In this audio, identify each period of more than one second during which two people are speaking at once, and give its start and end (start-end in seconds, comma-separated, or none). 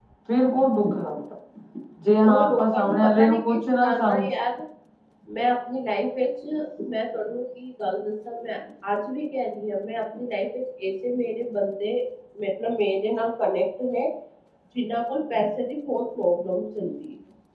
2.2-4.2